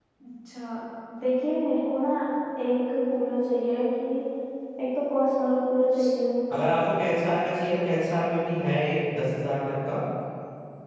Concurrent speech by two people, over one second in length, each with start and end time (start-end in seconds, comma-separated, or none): none